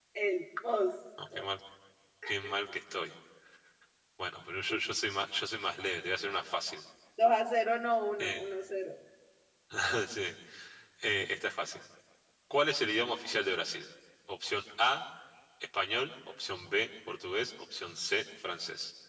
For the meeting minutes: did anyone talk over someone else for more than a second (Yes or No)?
No